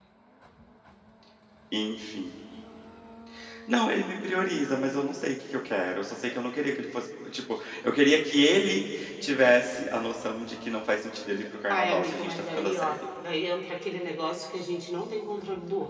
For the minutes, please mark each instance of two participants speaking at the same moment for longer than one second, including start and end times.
11.7-13.0

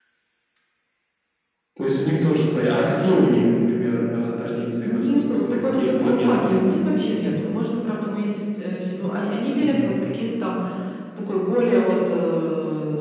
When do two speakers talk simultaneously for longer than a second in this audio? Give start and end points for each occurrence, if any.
4.8-7.3

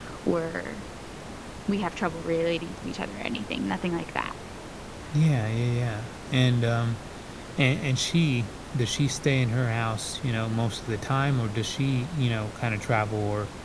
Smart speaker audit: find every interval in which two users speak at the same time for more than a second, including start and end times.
none

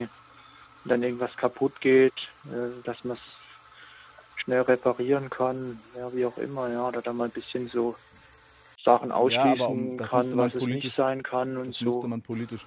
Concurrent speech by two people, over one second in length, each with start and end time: 9.2-11.0

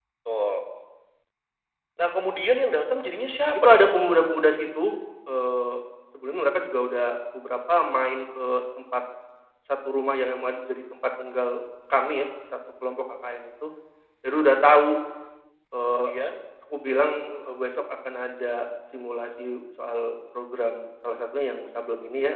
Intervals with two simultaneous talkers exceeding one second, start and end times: none

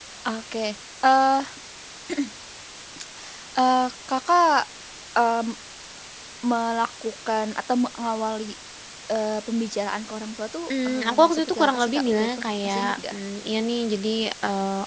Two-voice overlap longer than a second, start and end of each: 10.8-13.2

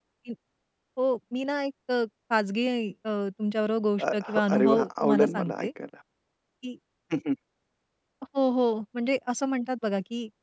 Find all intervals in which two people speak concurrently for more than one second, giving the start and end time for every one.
4.0-5.7

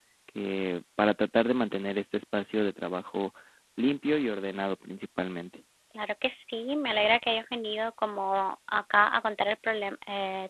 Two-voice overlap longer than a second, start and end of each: none

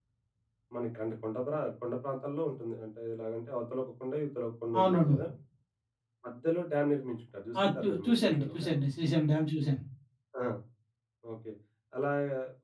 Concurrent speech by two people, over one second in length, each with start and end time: 7.6-8.8

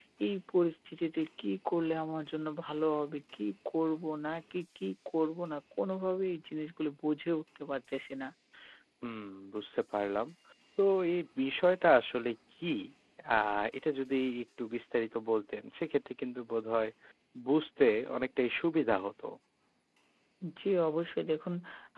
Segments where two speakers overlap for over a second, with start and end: none

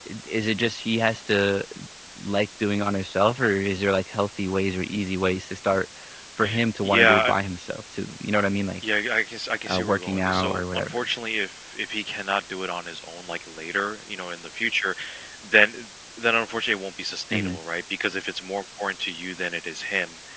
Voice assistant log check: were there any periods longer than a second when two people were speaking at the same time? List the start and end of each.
9.7-11.0

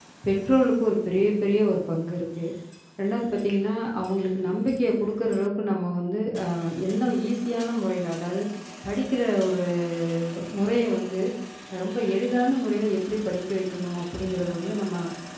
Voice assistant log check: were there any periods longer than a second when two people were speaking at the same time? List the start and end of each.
none

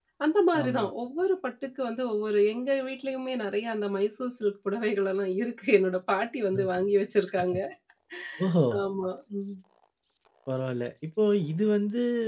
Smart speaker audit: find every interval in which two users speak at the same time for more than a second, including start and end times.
none

